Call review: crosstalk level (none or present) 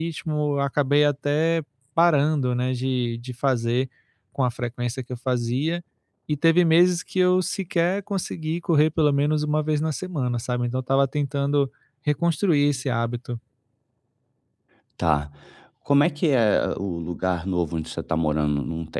none